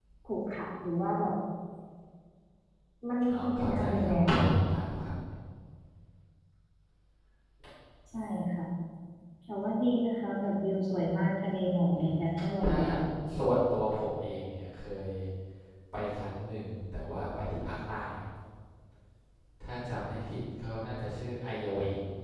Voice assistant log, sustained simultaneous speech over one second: present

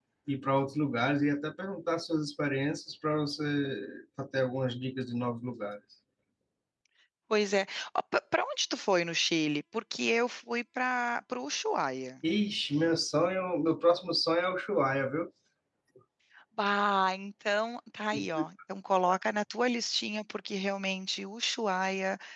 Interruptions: none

